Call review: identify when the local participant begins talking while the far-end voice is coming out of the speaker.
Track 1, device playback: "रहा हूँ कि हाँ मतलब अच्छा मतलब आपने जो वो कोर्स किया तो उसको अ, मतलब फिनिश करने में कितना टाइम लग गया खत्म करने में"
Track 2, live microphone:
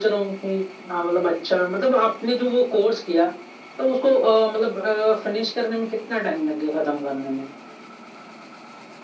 none

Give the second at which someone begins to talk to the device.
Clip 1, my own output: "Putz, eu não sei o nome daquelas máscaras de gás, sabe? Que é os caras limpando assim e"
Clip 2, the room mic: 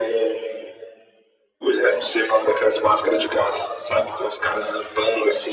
none

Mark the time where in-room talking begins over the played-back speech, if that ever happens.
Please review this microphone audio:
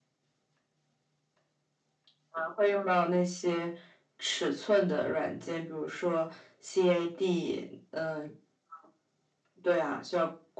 none

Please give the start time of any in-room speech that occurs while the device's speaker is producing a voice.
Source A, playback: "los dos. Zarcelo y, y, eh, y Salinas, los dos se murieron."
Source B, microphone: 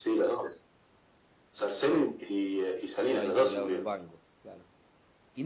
3 s

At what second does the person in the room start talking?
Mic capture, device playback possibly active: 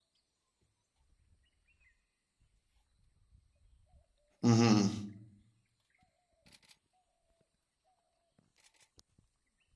4 s

